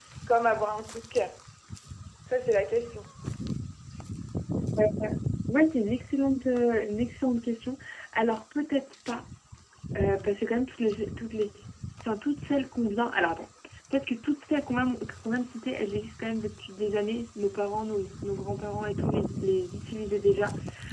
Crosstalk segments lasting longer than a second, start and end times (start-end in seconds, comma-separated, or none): none